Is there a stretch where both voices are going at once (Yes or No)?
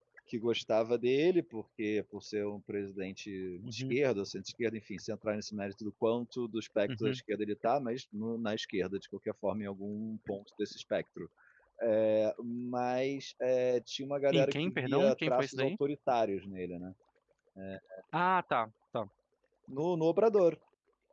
Yes